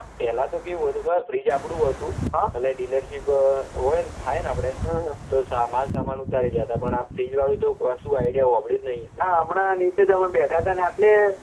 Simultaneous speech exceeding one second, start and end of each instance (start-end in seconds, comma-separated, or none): none